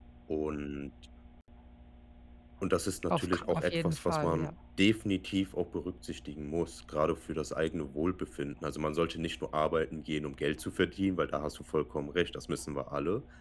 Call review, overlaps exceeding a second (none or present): present